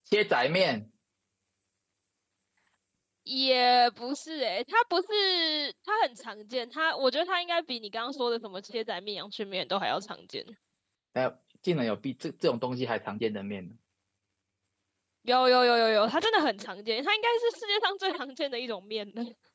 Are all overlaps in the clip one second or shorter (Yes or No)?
Yes